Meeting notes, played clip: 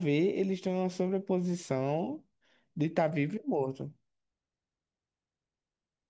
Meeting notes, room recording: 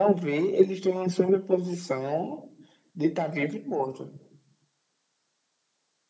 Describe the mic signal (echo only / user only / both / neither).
echo only